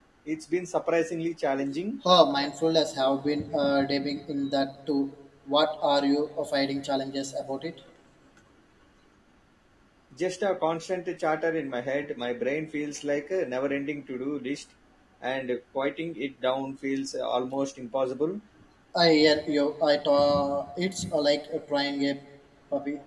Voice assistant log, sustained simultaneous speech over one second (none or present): none